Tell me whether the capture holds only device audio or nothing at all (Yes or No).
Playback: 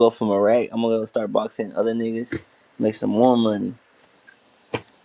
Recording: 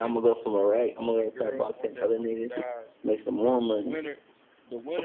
No